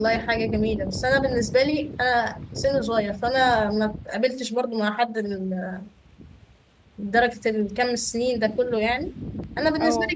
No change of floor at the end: Yes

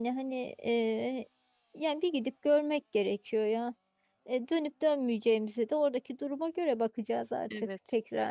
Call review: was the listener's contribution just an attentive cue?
No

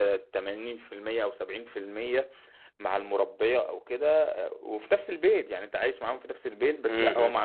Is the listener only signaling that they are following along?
Yes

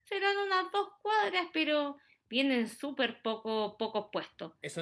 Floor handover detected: Yes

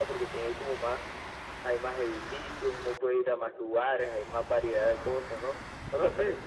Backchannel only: No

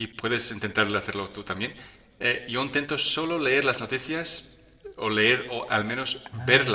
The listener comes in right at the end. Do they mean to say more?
No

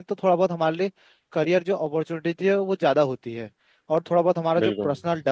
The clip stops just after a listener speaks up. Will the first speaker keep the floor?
Yes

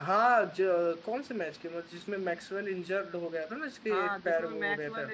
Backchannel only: No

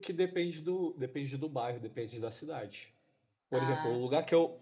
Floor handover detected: No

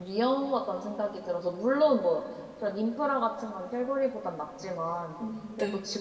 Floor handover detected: No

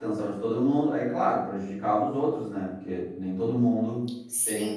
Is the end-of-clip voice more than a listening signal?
Yes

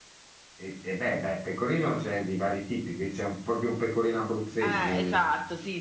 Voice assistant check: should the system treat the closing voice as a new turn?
Yes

